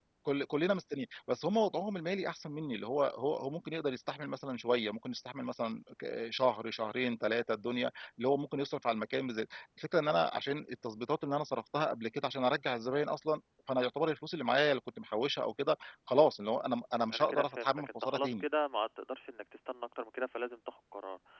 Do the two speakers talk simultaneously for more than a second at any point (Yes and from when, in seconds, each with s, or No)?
Yes, from 17.1 s